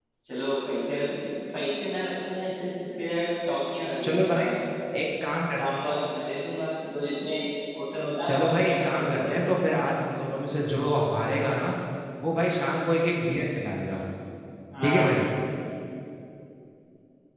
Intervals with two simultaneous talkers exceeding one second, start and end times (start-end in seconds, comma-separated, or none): 8.3-9.6